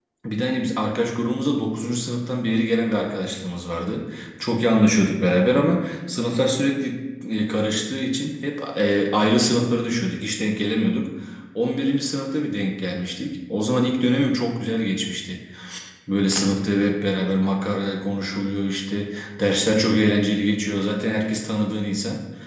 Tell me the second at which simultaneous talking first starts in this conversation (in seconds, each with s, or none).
none